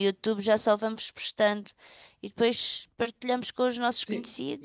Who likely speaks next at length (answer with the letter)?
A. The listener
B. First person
A